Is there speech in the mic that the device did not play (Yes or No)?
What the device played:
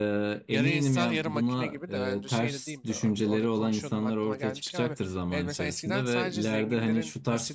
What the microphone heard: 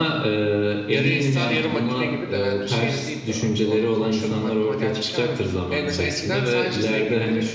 No